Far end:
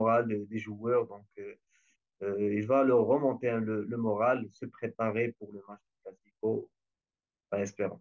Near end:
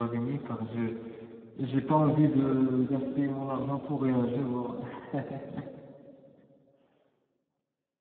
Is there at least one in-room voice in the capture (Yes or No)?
Yes